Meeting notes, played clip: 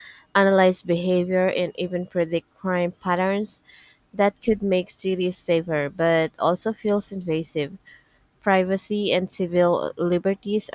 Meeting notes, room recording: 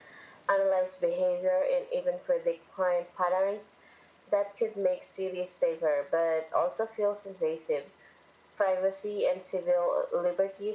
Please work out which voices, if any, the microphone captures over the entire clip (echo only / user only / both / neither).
echo only